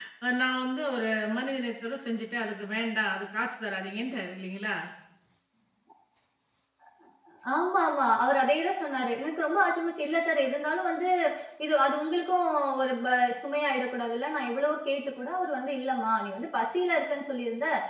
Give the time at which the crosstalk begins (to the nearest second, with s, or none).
none